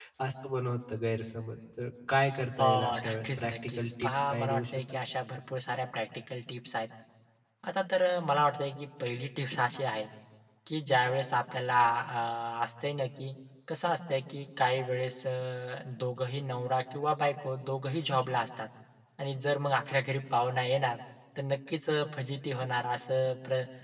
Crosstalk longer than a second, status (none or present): present